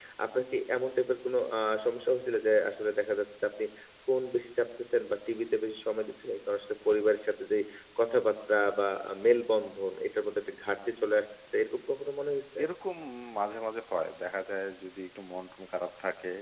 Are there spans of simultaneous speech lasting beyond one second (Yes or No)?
No